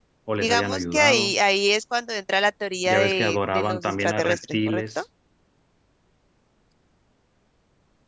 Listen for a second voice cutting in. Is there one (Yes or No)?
Yes